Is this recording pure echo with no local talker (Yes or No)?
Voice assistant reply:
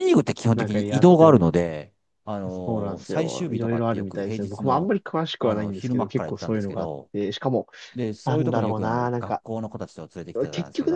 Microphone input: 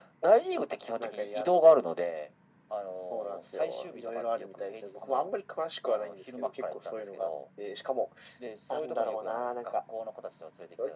Yes